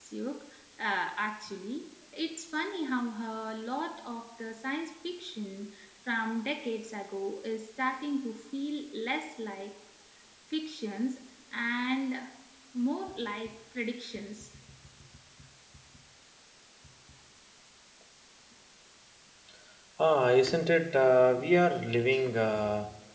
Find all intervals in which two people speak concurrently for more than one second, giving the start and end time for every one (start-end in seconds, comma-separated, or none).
none